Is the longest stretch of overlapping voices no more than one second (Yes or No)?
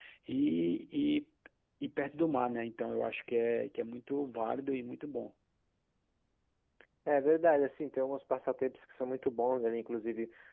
Yes